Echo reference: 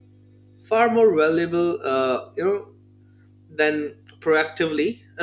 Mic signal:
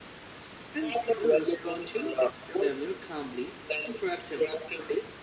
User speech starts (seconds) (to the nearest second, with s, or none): 1 s